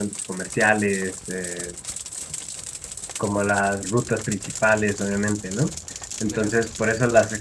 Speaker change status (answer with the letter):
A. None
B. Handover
A